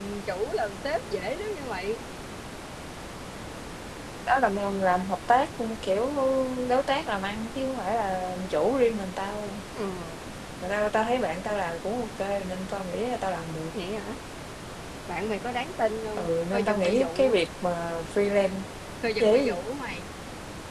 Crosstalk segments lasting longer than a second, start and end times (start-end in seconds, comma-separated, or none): 16.2-17.4